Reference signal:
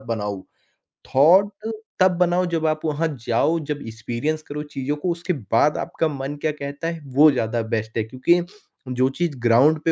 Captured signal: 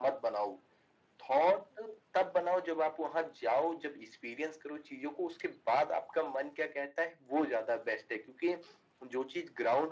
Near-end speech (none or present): none